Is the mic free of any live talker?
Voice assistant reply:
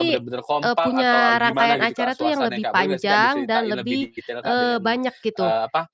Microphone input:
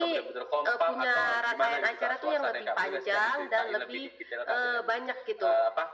Yes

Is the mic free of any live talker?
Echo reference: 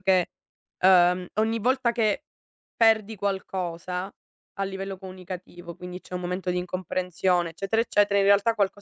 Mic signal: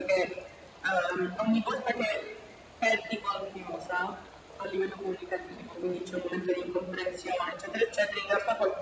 Yes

